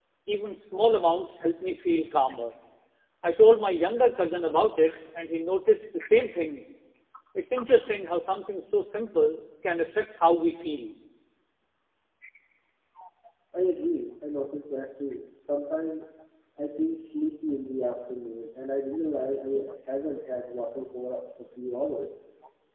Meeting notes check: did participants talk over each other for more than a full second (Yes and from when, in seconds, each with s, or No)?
No